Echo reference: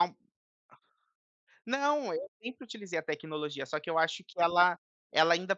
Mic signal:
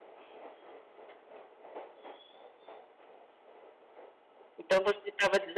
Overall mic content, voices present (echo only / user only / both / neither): user only